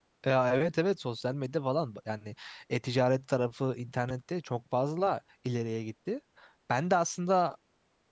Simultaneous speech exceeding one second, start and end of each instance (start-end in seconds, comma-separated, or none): none